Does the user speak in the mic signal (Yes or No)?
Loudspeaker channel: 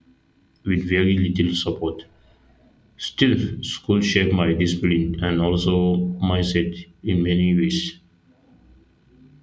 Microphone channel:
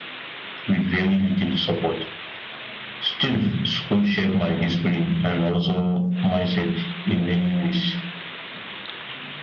No